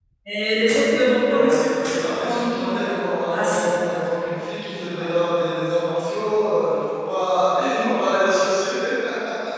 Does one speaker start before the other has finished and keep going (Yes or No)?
Yes